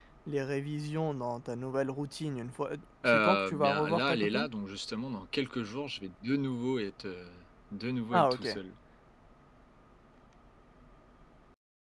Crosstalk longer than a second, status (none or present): present